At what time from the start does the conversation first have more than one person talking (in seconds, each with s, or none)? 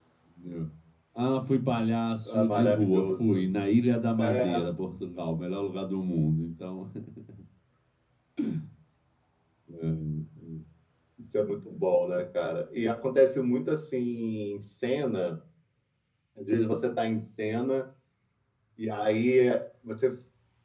2.2 s